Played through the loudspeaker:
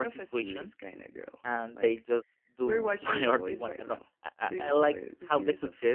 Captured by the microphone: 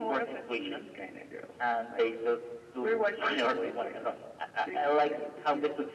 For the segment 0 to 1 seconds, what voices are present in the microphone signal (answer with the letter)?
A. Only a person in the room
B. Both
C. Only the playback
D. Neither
C